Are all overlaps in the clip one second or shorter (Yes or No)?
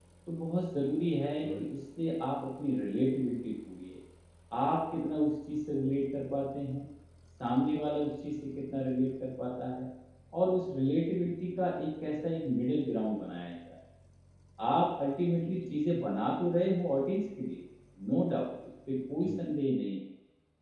Yes